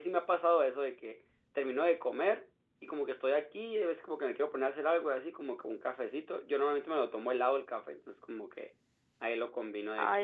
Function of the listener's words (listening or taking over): taking over